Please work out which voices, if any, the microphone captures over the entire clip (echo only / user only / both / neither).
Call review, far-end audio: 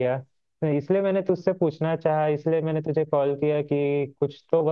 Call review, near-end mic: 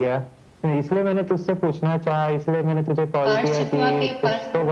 both